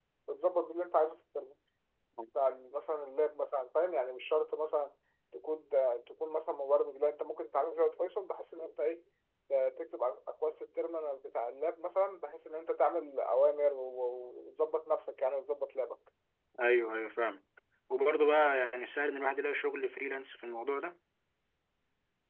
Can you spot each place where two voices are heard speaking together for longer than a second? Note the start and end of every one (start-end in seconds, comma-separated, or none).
none